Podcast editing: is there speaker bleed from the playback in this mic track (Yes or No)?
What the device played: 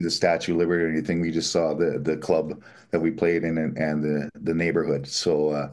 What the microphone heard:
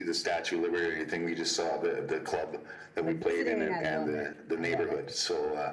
Yes